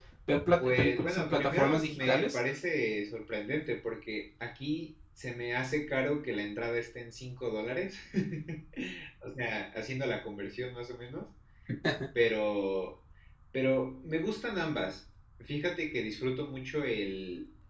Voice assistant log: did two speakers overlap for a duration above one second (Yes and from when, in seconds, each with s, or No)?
Yes, from 0.6 s